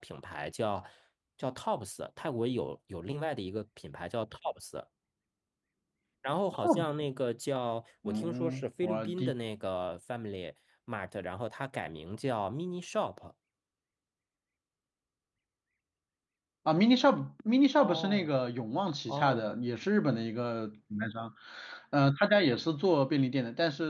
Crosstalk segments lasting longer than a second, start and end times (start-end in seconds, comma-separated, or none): 8.0-9.3